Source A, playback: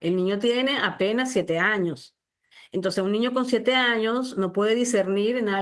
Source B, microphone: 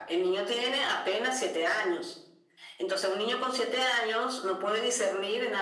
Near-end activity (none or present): none